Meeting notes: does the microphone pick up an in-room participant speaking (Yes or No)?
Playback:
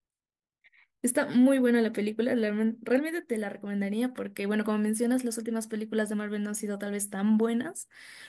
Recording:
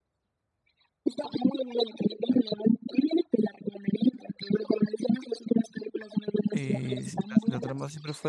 Yes